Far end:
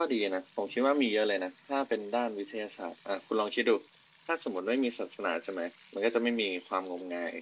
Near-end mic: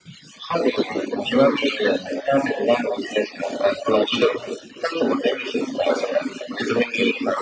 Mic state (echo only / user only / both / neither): echo only